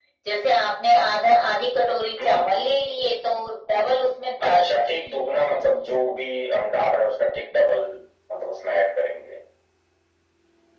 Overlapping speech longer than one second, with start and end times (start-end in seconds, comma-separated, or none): none